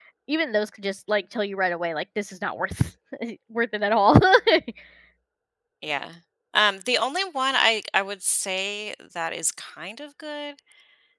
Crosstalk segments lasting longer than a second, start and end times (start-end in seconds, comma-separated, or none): none